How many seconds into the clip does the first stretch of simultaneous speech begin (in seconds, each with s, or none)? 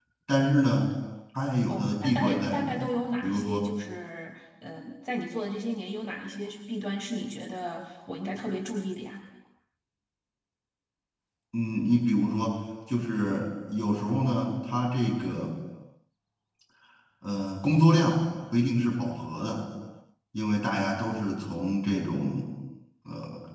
1.7 s